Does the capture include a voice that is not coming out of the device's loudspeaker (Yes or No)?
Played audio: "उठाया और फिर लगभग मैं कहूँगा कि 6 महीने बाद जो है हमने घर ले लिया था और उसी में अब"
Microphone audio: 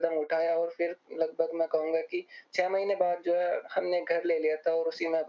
No